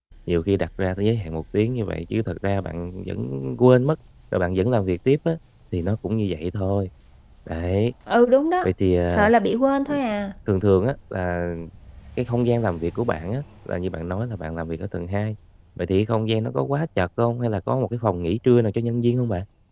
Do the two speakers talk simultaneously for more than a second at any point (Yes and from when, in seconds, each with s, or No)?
No